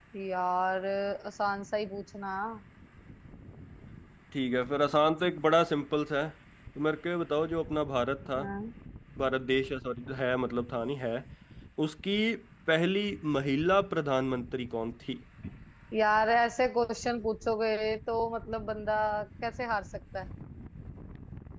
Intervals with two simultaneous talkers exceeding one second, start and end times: none

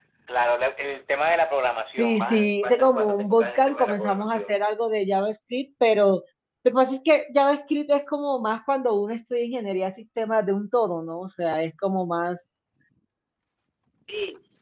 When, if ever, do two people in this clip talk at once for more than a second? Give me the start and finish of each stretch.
2.0-4.6

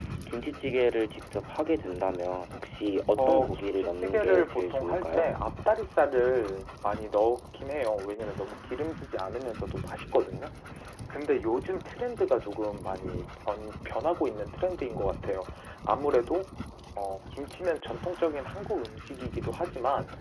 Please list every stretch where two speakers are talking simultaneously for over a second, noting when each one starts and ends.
3.2-5.3

